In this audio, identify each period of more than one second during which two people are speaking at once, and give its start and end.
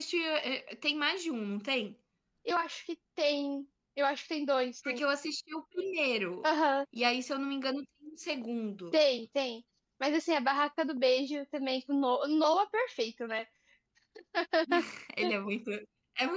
none

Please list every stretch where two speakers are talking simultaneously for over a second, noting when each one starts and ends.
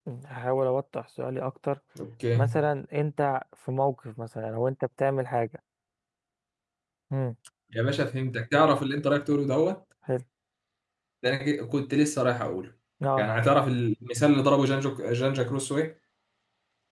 none

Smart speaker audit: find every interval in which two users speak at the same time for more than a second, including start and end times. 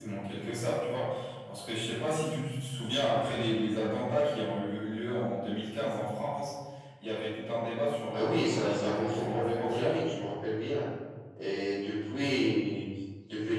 8.1-10.0

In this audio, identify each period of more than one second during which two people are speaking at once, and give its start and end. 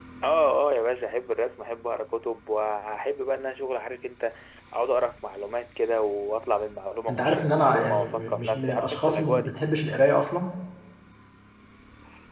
7.1-9.5

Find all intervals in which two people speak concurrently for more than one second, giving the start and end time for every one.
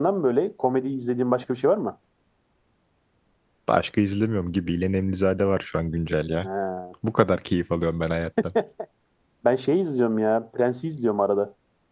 none

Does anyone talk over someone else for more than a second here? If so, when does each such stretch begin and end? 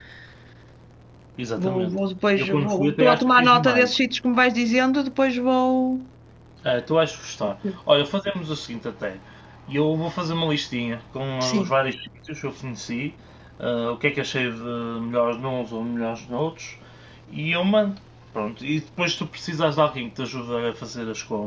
2.4-3.9

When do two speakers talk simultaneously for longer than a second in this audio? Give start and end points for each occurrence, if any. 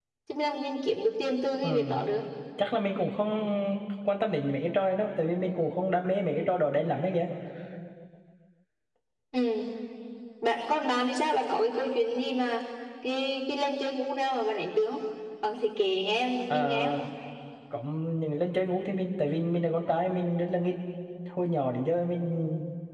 none

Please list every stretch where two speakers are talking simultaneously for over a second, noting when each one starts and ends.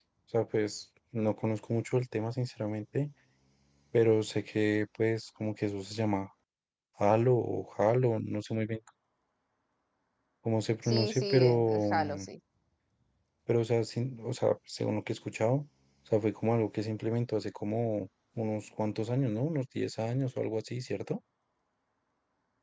10.8-12.2

